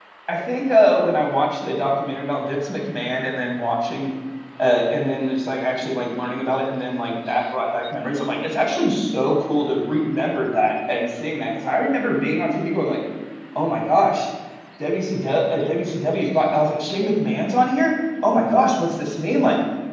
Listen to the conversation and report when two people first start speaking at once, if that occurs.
none

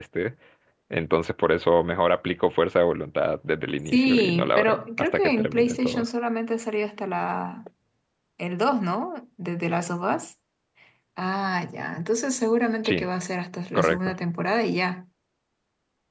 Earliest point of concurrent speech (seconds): 3.9 s

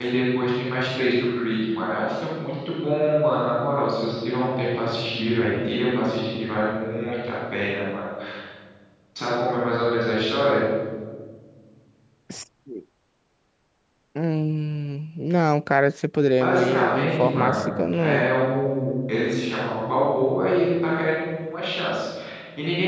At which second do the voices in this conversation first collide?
16.4 s

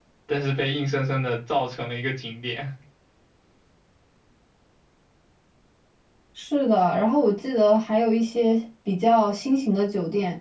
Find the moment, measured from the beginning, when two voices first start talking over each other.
none

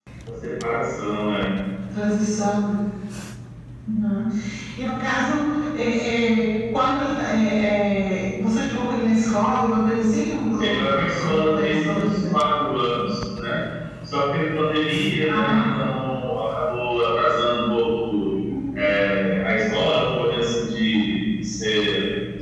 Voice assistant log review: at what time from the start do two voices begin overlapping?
10.6 s

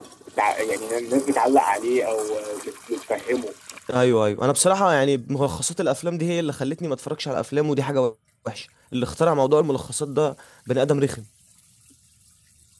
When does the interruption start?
none

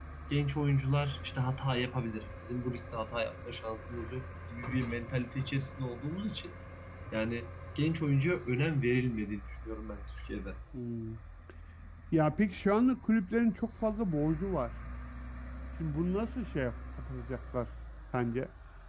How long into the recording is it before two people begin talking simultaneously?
none

